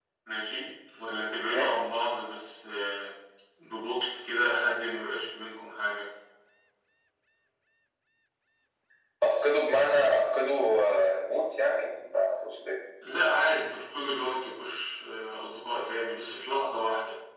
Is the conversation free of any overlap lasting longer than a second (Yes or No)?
Yes